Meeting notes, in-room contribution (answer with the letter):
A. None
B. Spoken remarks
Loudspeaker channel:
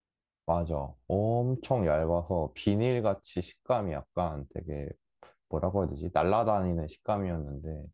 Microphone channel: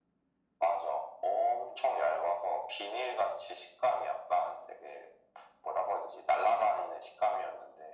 A